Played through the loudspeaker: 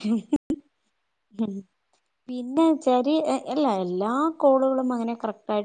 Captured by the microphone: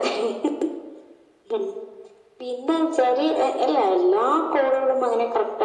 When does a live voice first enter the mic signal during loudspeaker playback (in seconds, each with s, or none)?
none